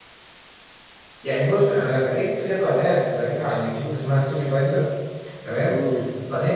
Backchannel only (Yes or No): Yes